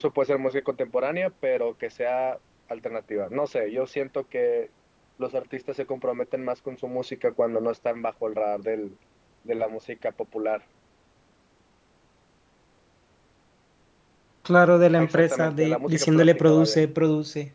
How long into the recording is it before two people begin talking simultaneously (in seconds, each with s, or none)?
15.0 s